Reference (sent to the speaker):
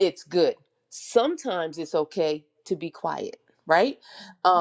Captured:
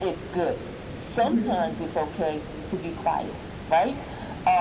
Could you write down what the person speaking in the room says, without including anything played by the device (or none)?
hmm